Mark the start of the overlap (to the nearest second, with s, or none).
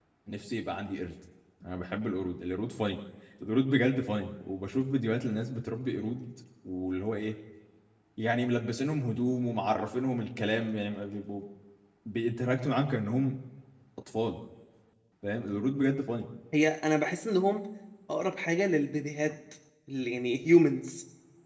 none